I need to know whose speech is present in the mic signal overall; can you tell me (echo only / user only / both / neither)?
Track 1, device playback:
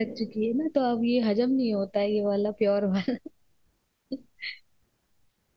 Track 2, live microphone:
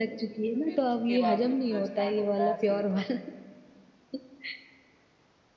both